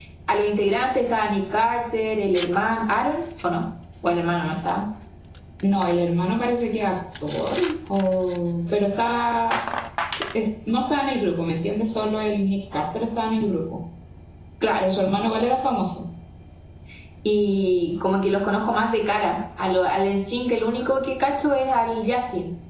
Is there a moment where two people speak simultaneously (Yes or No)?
No